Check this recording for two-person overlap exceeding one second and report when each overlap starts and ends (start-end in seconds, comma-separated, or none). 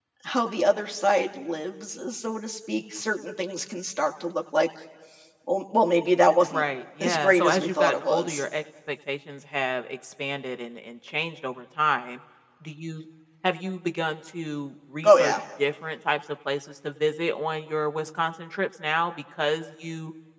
7.0-8.4